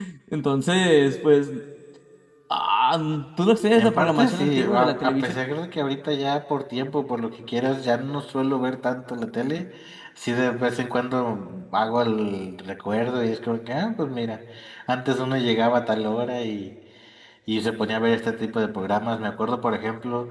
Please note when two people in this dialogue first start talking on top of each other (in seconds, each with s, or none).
3.8 s